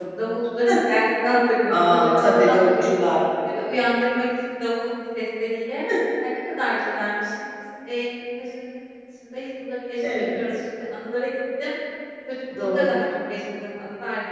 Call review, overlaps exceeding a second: present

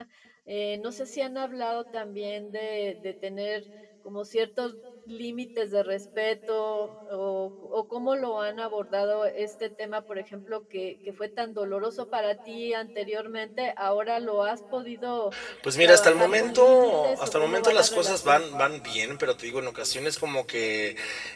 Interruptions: present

